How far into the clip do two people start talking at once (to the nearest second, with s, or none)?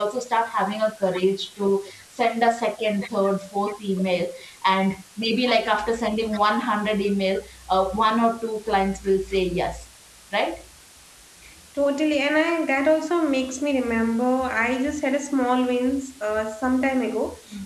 none